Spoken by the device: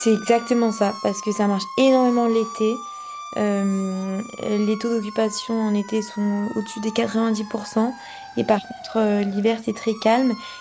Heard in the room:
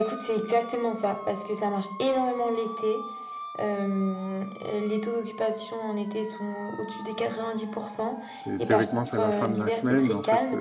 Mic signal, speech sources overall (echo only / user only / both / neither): both